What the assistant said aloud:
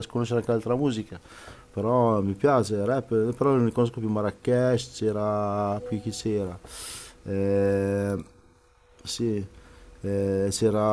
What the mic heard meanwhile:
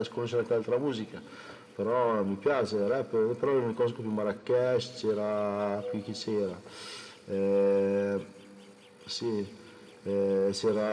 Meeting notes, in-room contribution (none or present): none